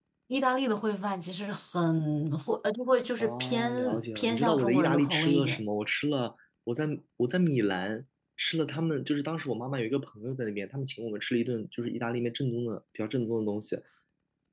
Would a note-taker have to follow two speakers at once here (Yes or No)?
Yes